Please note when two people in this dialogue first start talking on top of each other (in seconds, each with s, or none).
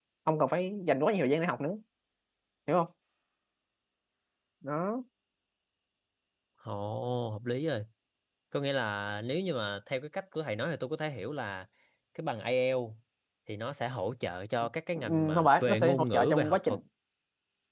15.0 s